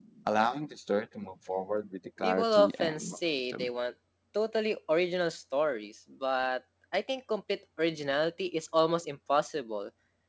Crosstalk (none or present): present